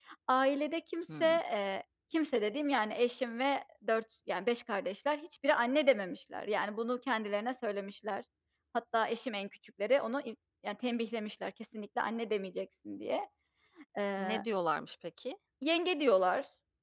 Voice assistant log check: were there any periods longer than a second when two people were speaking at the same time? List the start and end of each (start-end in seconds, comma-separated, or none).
none